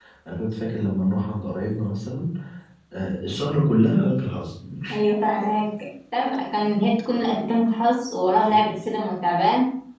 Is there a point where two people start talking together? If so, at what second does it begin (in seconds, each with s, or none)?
none